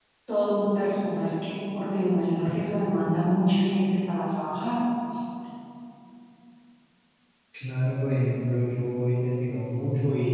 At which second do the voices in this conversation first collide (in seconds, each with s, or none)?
none